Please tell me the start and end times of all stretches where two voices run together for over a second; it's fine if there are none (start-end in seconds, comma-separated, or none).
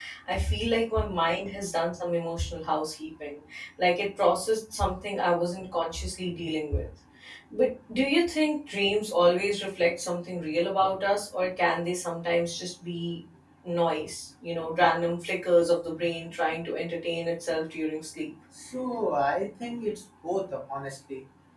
none